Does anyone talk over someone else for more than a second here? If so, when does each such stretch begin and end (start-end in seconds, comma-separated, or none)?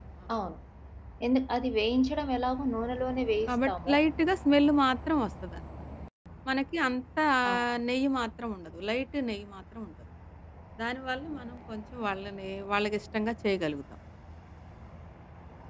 none